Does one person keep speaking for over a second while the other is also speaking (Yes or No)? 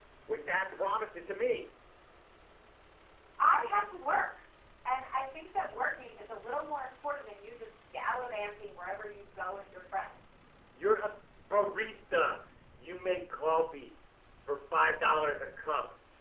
No